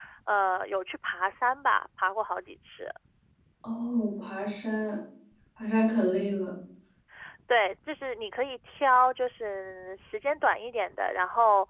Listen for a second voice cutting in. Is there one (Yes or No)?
No